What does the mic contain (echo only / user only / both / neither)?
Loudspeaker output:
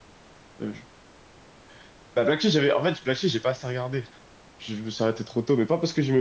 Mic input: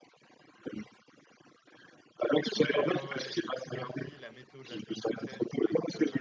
both